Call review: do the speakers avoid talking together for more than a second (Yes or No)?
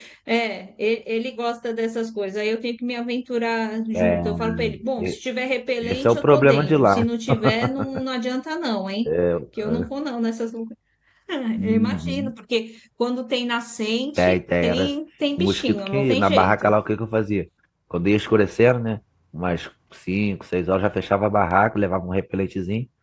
No